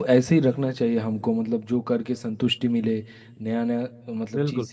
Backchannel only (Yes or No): Yes